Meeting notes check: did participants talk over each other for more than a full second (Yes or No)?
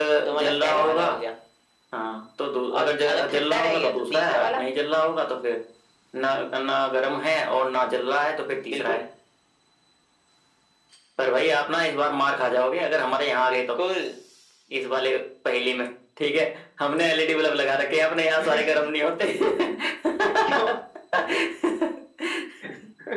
Yes